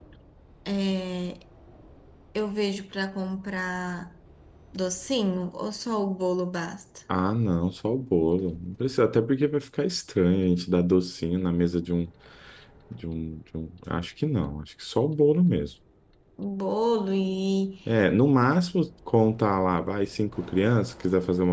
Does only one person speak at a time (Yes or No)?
Yes